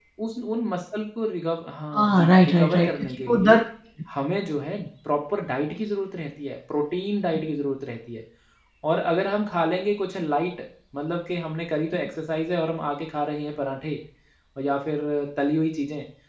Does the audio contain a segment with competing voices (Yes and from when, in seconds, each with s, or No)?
Yes, from 1.9 s